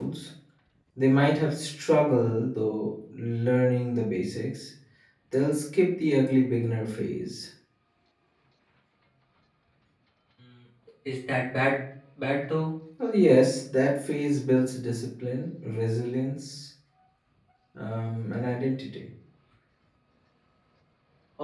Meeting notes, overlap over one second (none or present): none